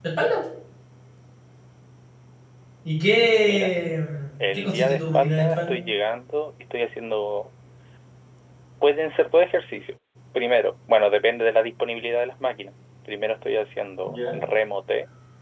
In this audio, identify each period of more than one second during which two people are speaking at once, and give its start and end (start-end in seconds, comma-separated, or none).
4.4-5.8